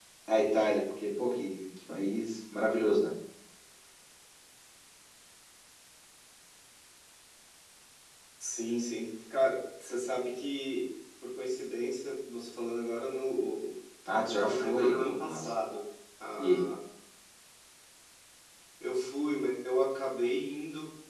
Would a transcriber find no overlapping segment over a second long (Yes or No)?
No